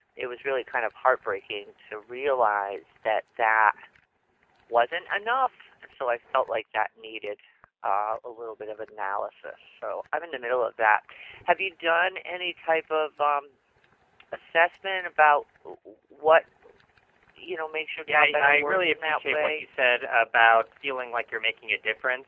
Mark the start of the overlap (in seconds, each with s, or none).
18.1 s